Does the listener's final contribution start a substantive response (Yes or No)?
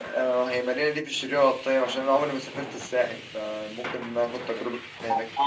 Yes